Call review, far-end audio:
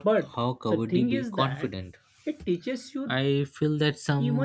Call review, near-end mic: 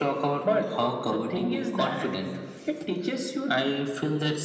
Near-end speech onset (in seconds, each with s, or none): none